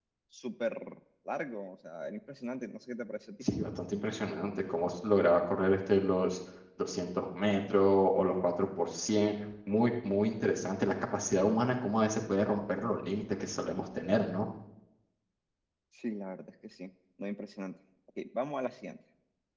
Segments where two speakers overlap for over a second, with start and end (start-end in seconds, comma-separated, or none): none